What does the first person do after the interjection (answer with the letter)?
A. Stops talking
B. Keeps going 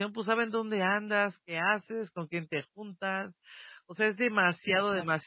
B